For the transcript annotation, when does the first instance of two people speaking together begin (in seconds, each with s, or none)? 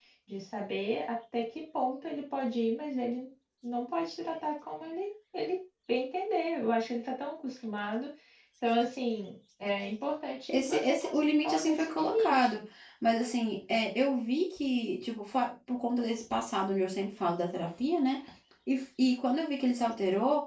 10.5 s